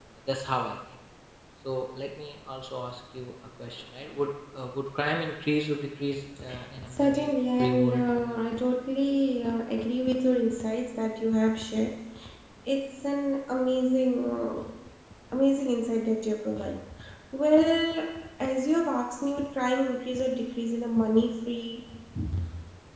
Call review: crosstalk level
present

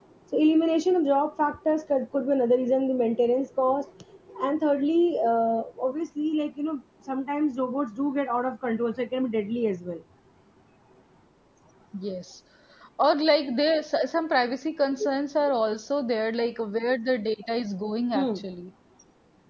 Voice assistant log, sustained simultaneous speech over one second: none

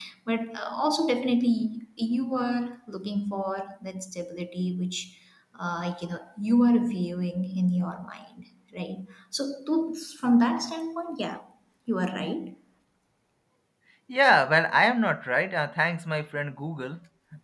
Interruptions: none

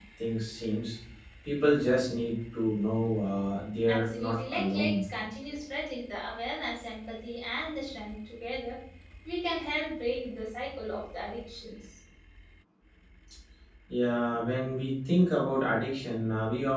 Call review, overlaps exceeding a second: present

